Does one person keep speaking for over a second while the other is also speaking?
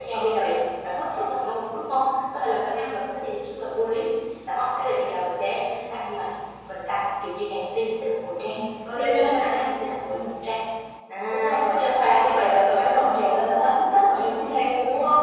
Yes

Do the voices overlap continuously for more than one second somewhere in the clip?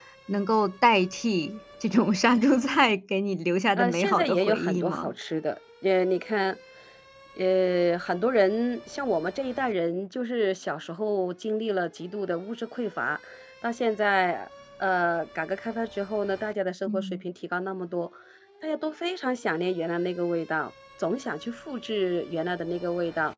Yes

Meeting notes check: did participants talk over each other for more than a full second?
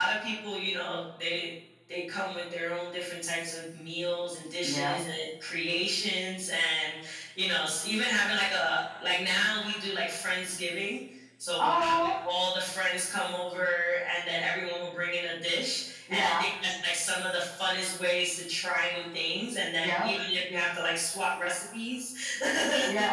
No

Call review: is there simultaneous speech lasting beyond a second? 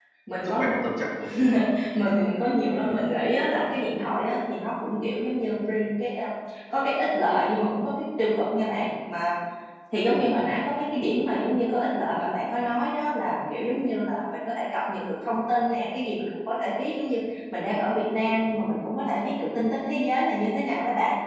No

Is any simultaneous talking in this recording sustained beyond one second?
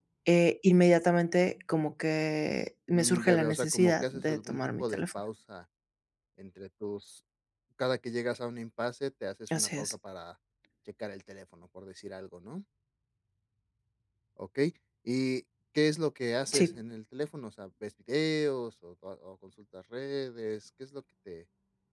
Yes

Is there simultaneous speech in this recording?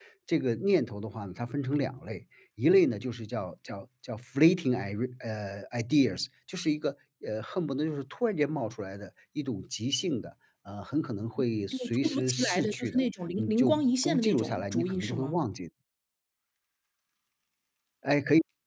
Yes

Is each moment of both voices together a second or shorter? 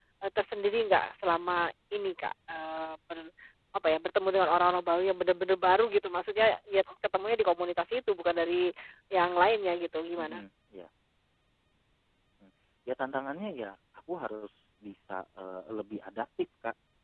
Yes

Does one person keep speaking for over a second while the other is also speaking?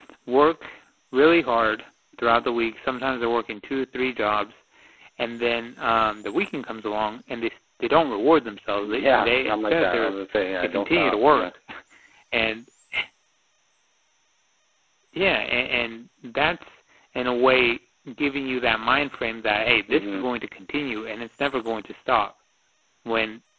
Yes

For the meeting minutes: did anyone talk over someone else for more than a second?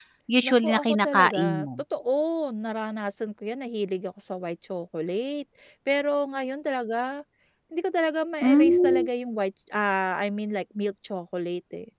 Yes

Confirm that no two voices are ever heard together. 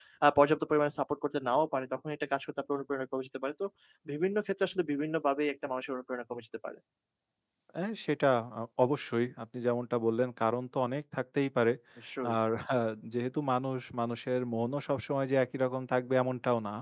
Yes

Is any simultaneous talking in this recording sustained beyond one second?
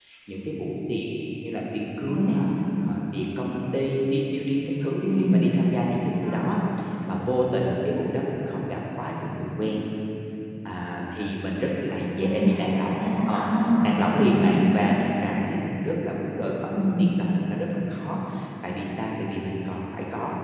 Yes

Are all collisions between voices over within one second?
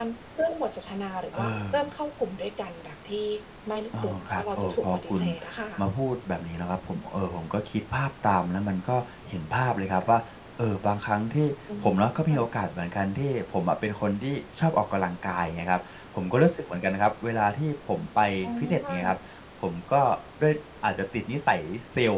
No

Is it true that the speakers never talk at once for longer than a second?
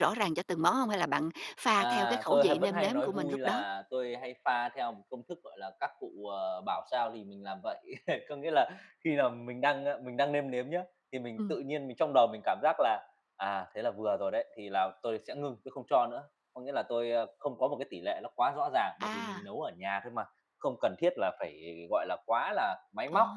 No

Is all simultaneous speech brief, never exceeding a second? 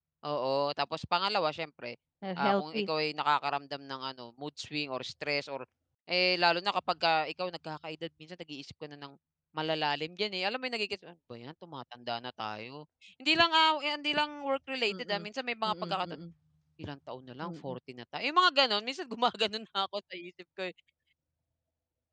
Yes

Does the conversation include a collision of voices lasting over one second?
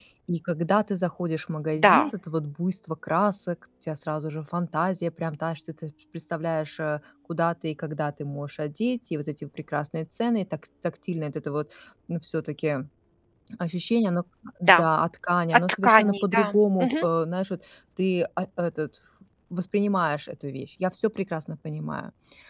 Yes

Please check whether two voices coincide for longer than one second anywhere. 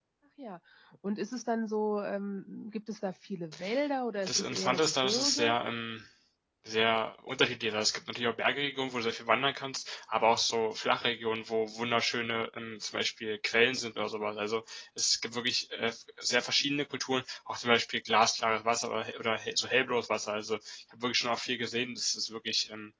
Yes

